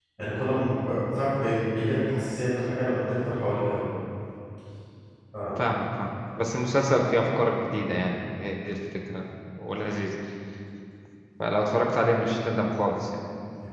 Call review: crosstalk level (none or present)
none